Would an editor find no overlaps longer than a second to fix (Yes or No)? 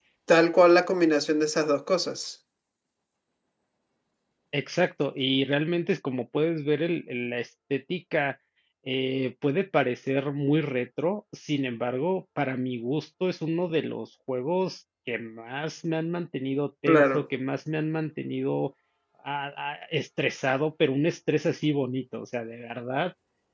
Yes